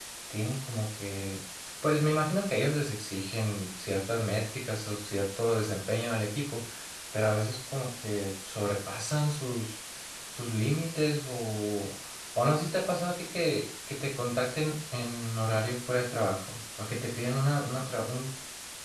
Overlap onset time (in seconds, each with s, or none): none